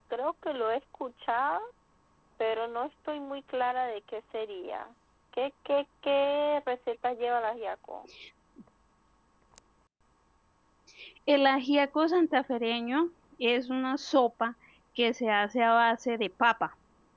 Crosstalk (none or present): none